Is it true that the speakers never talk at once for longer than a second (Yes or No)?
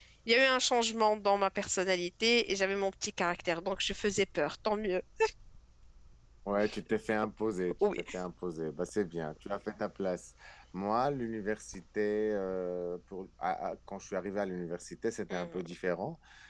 Yes